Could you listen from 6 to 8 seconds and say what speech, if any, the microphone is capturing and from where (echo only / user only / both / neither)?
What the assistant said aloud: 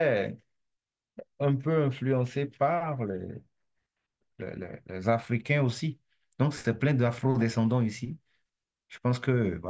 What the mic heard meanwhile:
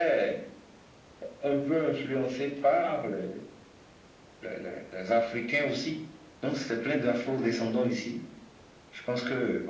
echo only